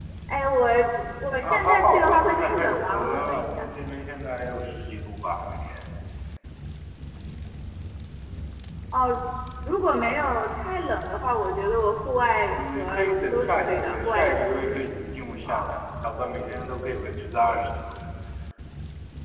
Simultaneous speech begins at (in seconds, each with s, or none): 1.4 s